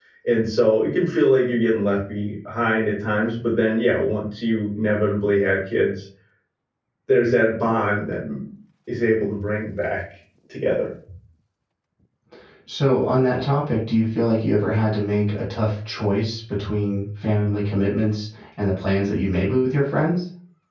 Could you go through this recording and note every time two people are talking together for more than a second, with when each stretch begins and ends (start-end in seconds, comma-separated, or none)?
none